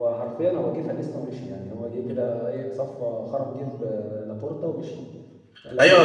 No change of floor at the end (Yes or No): No